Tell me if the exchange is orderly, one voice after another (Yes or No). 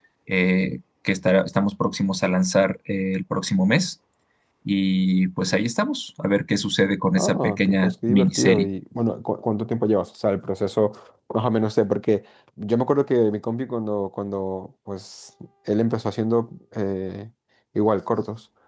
No